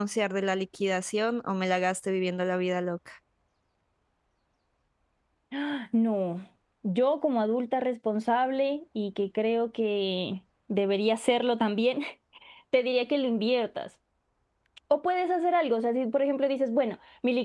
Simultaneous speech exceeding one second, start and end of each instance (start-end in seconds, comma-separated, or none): none